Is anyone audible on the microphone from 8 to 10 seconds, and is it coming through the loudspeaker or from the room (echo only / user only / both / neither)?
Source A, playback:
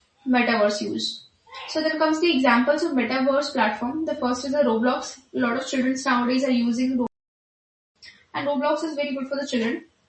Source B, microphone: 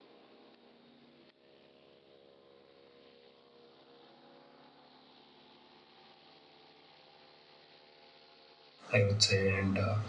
user only